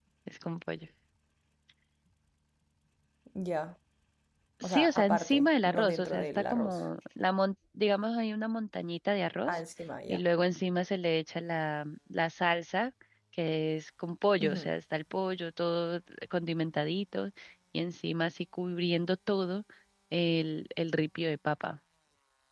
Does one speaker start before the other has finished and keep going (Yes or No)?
Yes